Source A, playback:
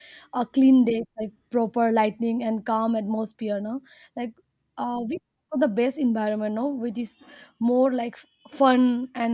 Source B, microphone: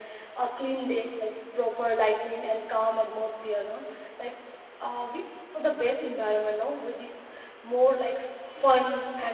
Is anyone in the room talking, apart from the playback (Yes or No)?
No